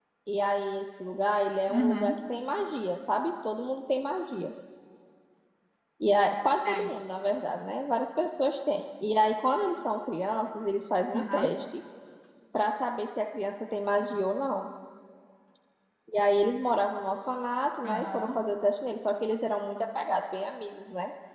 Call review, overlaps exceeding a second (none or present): none